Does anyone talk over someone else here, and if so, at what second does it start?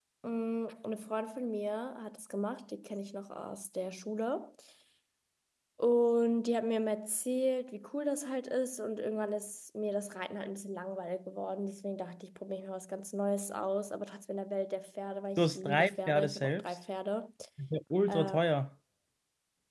15 s

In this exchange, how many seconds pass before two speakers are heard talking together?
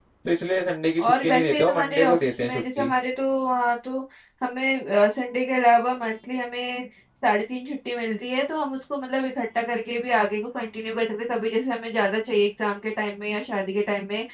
1 s

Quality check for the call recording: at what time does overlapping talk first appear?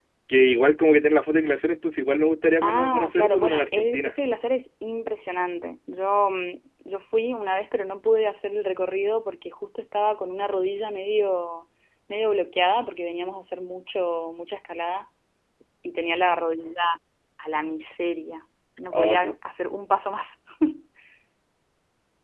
3 s

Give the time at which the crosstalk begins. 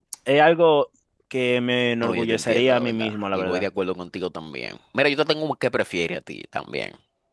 2 s

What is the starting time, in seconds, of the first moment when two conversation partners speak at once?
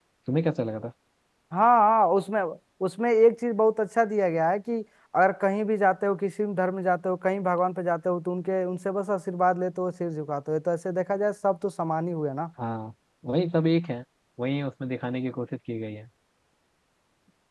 none

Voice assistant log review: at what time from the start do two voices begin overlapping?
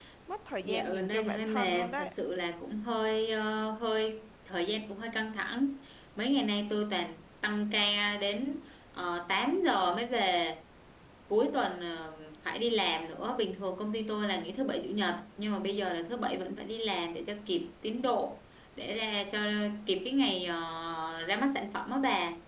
1 s

